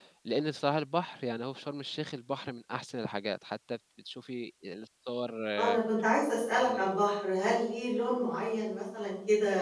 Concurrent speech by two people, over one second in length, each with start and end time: none

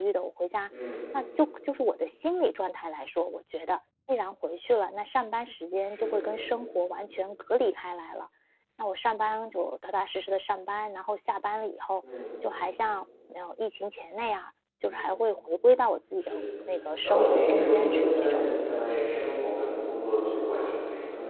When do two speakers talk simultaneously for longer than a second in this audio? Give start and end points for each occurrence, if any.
17.0-18.5

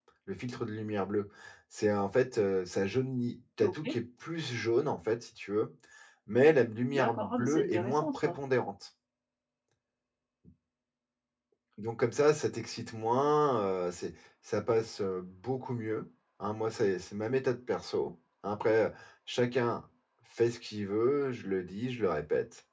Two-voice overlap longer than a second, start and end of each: 6.9-8.3

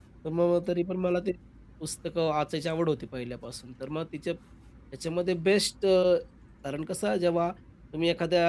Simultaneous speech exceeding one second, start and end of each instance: none

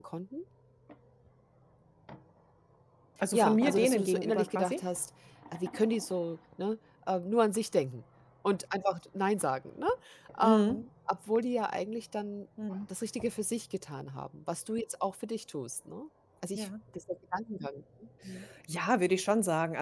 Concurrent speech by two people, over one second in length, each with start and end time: 3.3-4.8

